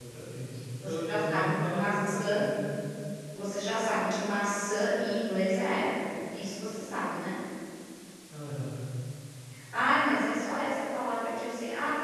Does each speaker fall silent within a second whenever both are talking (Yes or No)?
No